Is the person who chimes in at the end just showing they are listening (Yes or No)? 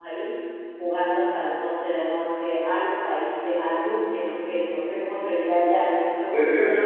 No